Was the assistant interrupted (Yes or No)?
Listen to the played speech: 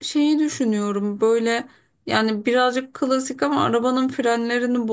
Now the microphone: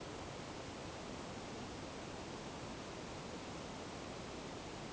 No